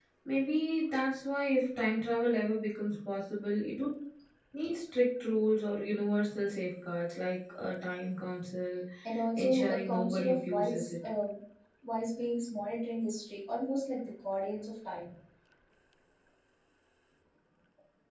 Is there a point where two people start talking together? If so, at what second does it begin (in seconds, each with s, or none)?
9.4 s